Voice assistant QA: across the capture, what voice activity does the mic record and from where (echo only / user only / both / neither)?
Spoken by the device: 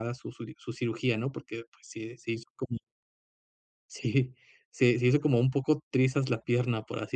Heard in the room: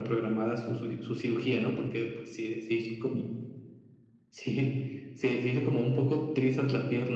echo only